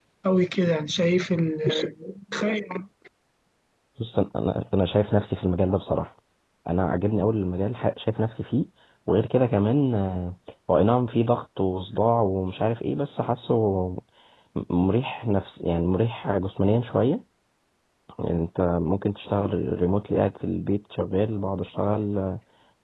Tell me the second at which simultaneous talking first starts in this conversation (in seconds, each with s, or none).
none